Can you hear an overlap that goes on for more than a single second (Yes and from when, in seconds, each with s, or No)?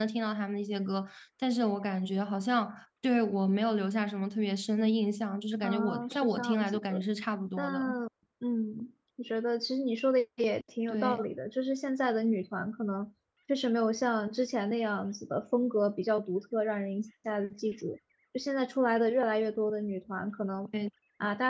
Yes, from 5.6 s